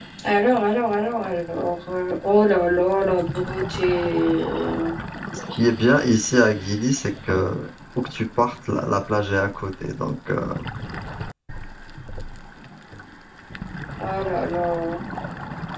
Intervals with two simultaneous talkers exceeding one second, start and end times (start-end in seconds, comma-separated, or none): none